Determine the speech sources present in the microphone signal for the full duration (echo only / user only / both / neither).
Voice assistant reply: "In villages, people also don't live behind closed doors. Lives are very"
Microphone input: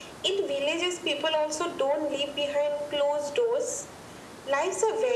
echo only